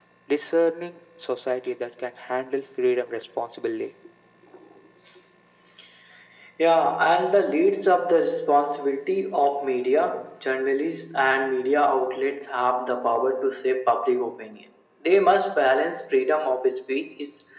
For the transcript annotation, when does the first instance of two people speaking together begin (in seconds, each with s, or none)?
none